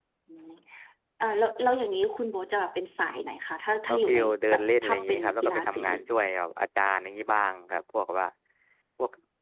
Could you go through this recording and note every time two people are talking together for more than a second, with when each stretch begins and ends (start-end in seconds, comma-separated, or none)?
3.9-5.8